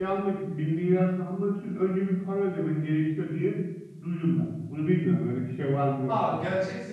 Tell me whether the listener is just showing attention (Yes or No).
No